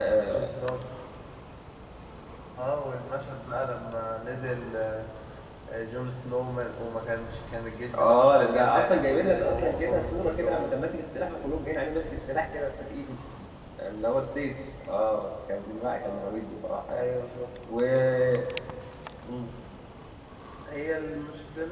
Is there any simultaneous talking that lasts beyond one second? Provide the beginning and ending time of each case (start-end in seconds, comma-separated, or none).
8.0-10.8